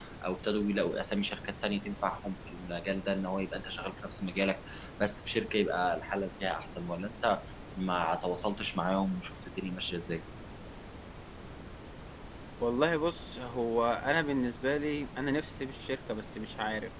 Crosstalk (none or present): none